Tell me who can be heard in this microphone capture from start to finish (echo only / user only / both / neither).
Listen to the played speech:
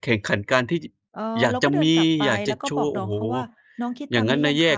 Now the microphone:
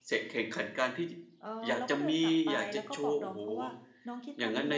echo only